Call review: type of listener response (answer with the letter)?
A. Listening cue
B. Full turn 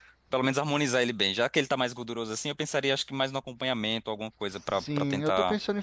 B